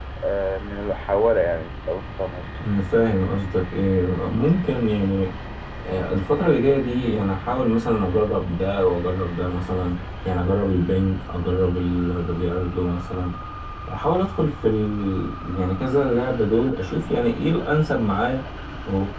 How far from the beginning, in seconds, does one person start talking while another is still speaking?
none

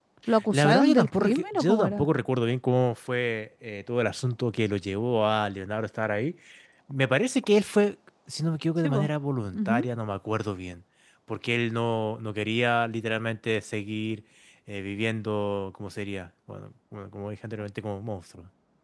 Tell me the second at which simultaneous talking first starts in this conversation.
0.5 s

